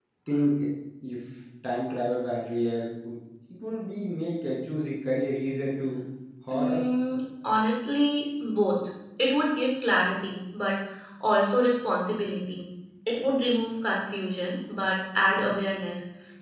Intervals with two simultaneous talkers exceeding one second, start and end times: none

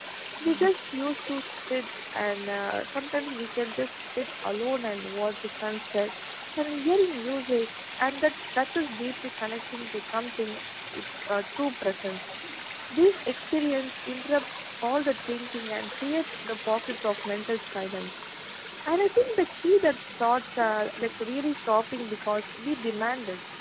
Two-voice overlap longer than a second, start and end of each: none

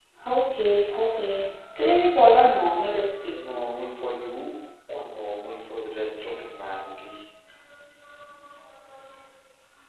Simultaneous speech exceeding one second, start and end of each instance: none

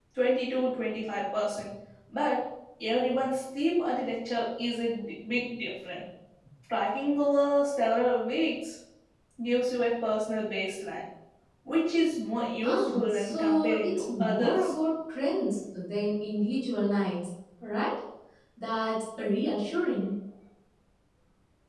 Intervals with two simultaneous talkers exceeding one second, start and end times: 12.6-14.7

